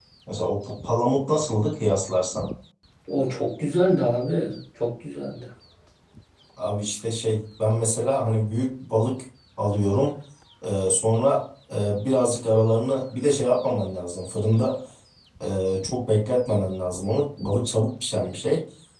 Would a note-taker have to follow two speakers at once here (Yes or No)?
No